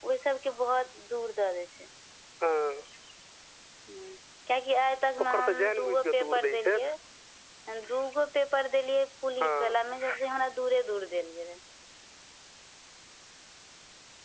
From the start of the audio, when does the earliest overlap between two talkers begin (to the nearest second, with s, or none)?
5 s